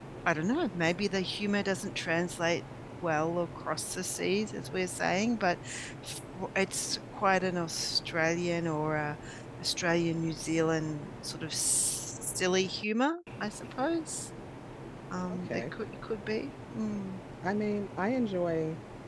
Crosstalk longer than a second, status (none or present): none